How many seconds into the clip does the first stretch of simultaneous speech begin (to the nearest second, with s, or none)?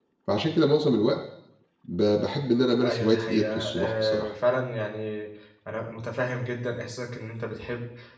3 s